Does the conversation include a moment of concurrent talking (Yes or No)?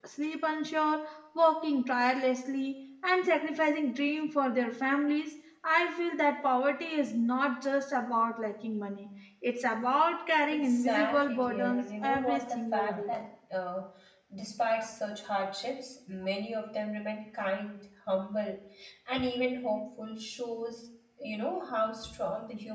Yes